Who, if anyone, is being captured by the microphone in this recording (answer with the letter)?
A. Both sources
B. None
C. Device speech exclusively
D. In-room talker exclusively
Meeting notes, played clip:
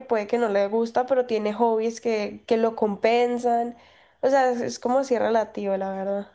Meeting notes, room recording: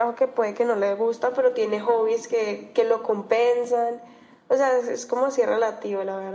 C